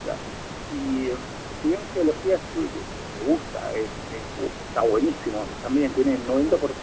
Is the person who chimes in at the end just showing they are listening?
Yes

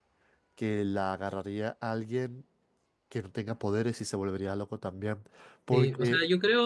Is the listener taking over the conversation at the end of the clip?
Yes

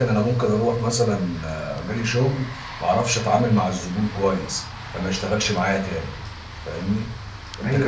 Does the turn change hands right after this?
Yes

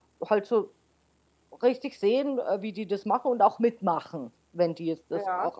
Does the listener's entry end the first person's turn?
No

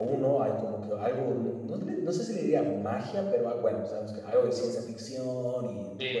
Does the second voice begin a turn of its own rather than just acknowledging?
Yes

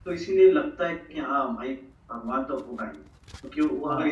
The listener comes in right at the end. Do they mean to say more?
No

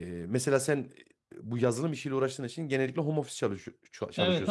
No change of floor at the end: No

